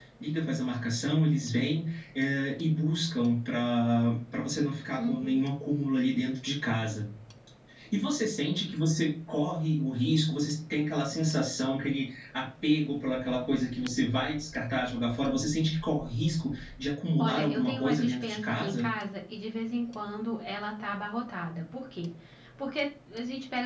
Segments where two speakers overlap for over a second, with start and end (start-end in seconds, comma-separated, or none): 17.2-18.9